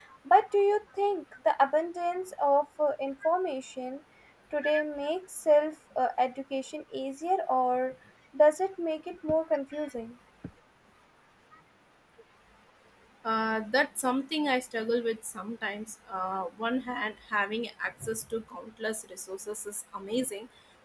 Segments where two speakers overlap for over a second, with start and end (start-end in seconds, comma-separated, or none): none